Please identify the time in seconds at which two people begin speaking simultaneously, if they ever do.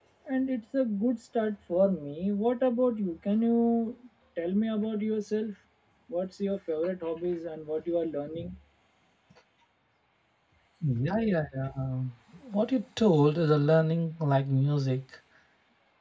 none

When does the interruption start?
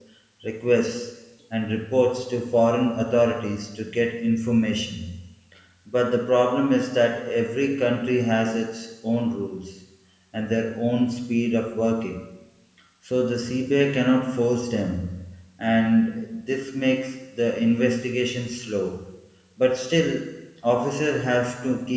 none

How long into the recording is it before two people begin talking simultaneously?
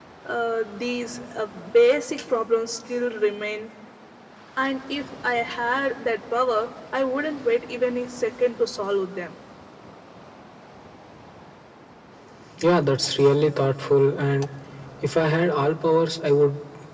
none

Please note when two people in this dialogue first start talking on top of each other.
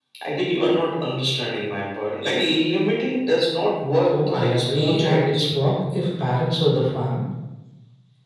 4.1 s

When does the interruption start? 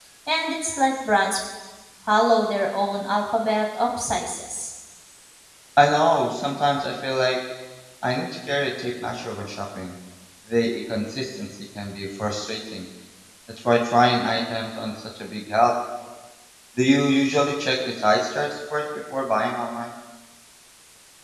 none

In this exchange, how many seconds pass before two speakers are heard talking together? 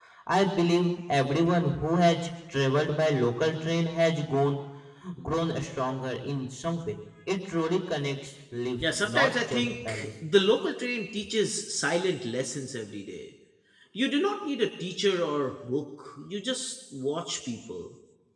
8.8 s

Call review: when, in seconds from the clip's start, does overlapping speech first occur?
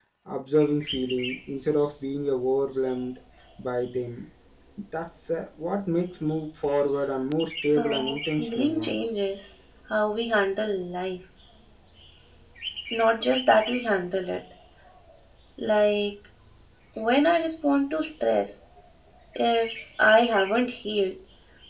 7.6 s

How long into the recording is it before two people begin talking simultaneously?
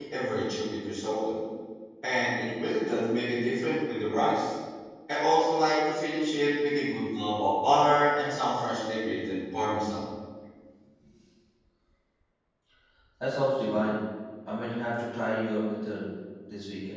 none

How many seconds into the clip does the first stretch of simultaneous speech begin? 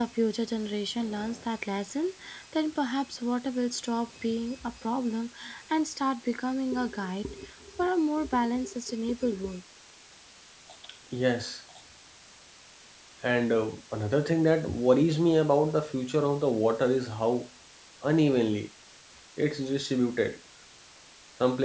none

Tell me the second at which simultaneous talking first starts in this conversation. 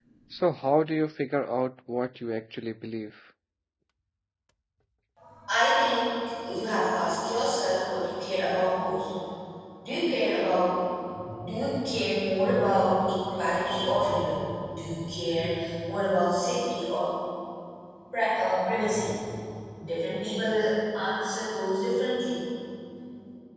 none

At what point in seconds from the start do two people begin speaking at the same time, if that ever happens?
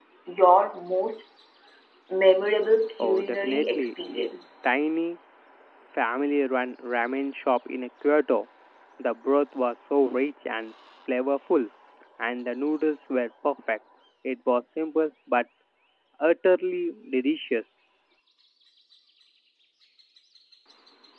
3.0 s

